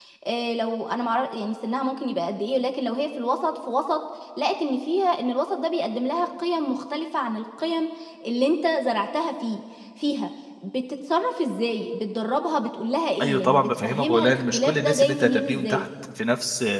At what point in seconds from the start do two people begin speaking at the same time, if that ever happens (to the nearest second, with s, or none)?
13 s